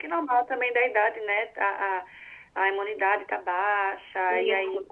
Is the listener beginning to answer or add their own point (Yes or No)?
No